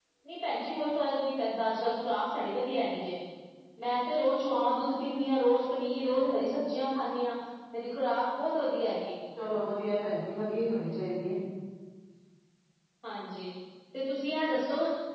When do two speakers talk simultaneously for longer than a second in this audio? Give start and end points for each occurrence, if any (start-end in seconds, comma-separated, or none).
none